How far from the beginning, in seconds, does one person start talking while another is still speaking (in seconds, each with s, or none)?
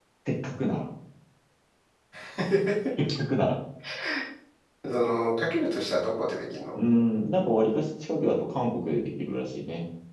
none